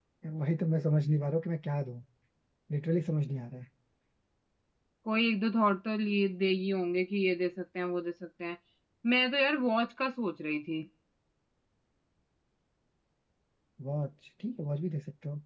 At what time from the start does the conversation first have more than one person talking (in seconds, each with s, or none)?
none